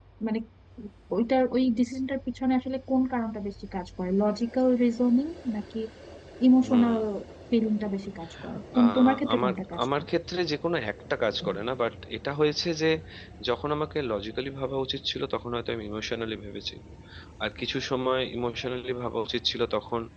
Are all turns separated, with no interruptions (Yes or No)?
No